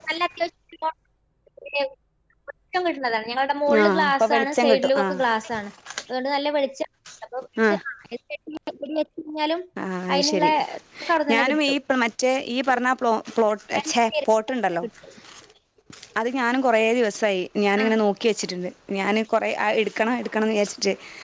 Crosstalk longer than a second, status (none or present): present